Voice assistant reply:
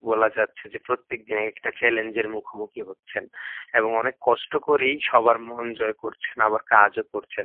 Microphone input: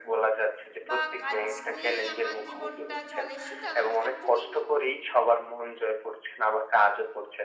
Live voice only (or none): বা কাজ নিয়েই আমার জীবনটা চলে সেটা নয়। অ্যাকচুয়ালি